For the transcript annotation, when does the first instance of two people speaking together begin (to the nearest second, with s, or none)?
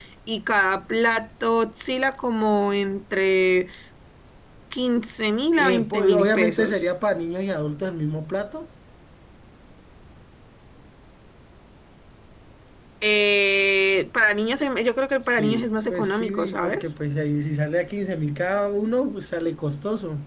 6 s